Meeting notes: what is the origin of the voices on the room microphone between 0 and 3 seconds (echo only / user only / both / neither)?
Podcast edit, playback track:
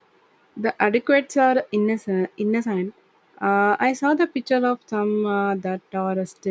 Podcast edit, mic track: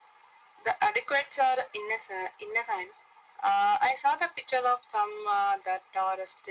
echo only